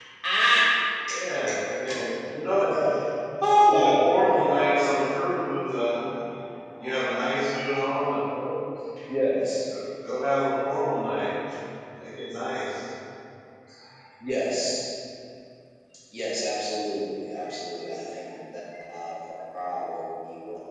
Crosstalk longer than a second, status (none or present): present